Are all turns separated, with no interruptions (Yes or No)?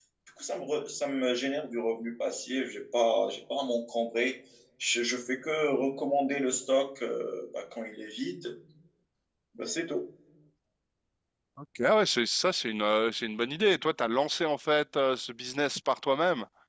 Yes